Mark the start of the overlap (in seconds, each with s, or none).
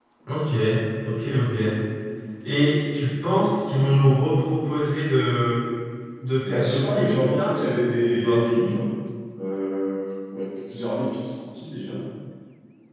6.5 s